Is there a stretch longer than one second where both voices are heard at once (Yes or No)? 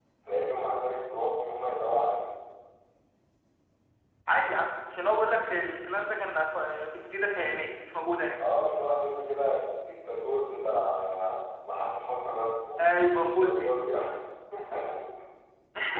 No